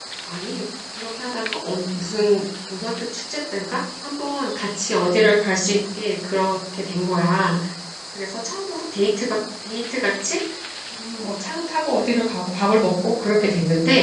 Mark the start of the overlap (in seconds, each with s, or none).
none